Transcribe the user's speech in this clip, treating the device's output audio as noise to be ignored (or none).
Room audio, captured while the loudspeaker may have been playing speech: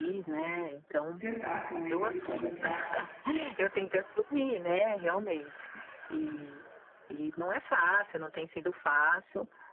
sentar com eles e conversar,